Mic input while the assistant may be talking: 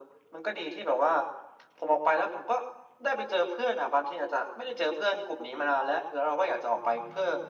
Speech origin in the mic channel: echo only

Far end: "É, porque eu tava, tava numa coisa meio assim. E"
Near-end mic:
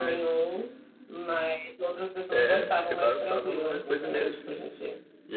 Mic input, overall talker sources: both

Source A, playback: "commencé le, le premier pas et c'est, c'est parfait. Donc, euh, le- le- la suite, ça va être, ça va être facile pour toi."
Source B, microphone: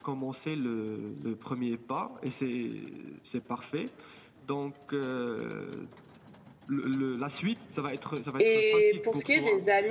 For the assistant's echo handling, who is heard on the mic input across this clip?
both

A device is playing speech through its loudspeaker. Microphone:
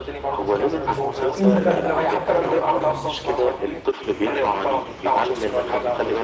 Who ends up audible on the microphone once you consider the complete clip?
both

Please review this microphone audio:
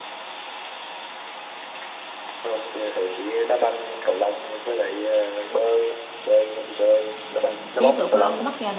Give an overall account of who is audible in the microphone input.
both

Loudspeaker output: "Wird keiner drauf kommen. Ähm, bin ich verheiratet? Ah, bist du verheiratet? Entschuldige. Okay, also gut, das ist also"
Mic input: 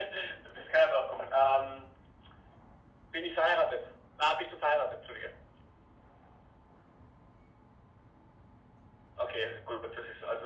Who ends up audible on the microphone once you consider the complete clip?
echo only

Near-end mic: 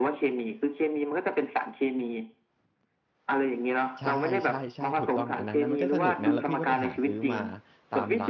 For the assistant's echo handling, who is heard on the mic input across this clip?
both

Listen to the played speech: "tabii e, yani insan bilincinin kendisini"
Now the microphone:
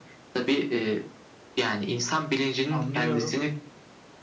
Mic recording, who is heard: both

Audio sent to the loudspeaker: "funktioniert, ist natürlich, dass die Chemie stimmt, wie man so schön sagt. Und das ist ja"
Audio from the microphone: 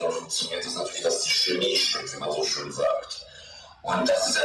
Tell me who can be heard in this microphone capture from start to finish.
echo only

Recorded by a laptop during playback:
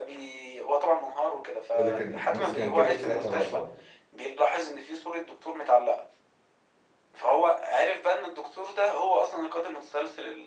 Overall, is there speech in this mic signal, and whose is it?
both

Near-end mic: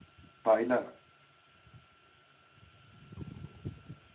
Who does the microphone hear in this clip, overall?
user only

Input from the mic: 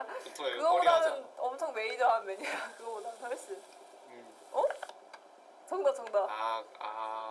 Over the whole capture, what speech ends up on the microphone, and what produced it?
echo only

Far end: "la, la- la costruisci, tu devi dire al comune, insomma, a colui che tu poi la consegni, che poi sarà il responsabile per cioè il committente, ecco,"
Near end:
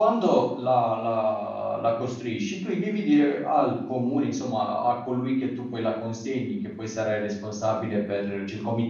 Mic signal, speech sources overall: echo only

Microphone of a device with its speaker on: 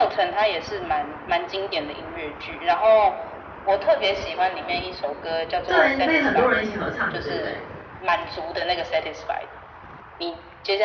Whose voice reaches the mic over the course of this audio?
both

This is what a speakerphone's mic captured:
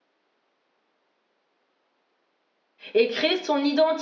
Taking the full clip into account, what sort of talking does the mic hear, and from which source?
user only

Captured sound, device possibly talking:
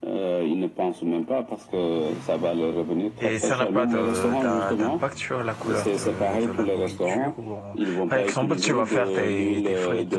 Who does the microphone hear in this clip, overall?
both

